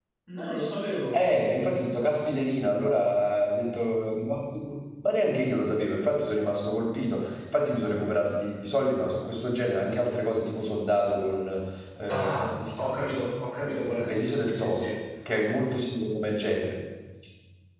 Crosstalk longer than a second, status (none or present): present